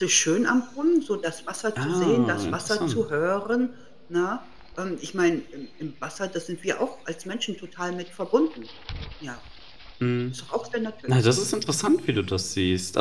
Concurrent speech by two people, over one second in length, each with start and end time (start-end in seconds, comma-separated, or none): 1.8-3.0